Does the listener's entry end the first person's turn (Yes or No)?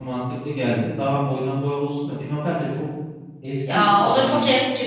Yes